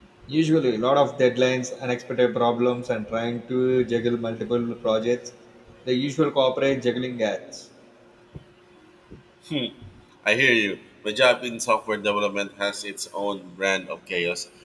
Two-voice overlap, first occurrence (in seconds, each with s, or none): none